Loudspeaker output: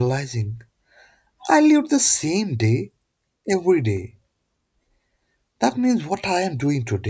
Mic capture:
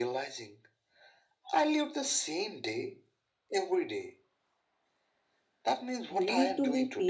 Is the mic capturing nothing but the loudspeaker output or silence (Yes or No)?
No